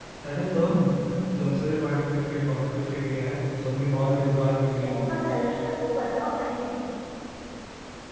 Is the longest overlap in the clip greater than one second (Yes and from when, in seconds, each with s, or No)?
No